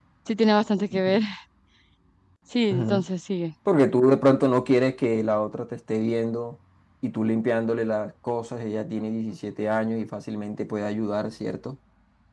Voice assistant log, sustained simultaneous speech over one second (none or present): none